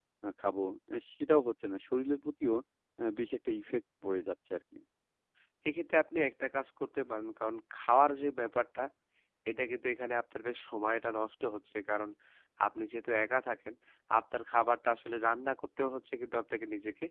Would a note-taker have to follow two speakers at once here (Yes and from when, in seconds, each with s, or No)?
No